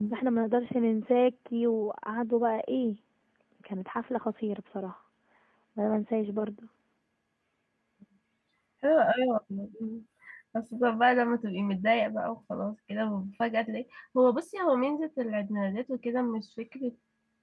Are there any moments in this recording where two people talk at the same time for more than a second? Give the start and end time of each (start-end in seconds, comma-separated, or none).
none